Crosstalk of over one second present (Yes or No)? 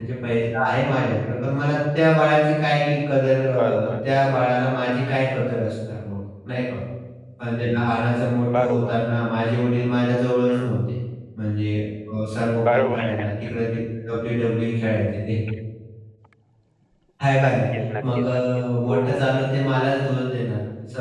Yes